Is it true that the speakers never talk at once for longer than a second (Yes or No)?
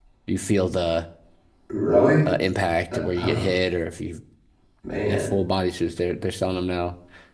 Yes